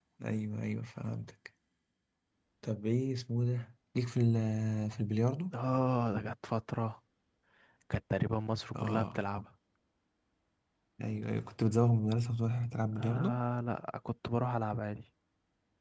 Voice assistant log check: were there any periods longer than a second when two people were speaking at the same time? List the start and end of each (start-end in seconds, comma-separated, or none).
none